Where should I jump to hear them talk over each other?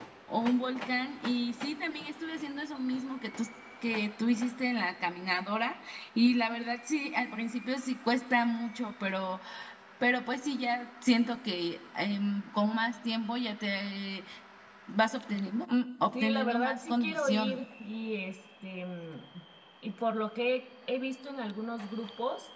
16.1 s

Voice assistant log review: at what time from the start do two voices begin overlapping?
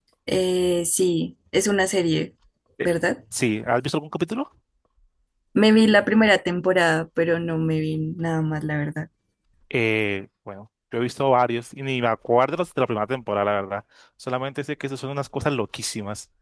none

